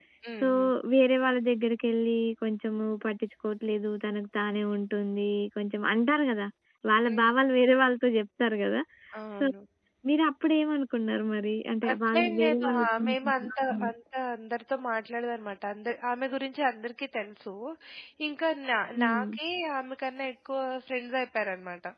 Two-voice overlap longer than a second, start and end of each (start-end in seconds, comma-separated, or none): 11.9-13.9